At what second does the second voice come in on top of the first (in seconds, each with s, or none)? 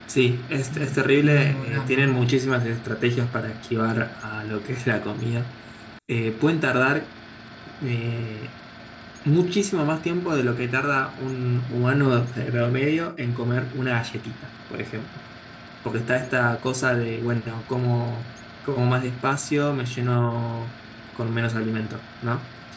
0.7 s